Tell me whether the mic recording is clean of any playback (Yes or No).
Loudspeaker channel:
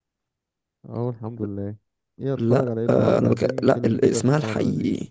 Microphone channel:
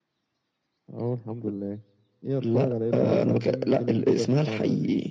No